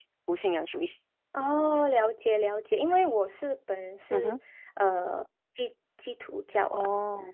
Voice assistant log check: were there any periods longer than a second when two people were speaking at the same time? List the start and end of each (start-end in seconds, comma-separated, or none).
none